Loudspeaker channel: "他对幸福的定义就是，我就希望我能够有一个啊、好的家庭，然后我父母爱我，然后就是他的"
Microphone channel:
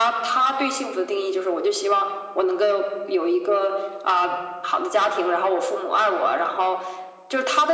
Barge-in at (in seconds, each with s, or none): none